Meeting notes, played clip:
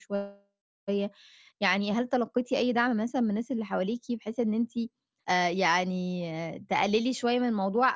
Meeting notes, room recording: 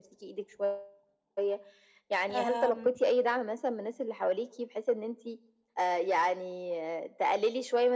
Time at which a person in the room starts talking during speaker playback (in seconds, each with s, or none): 2.3 s